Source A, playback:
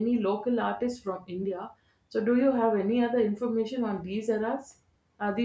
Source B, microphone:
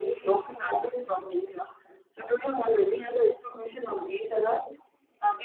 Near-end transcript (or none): none